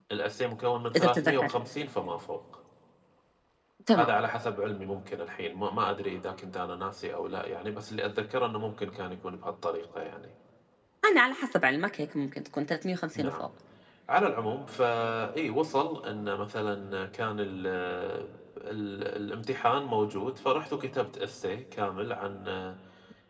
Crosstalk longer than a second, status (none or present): none